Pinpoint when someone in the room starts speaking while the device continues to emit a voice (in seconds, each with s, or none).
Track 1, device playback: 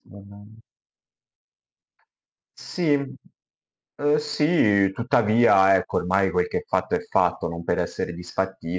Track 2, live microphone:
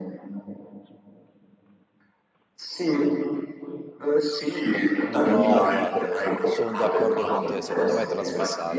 5.0 s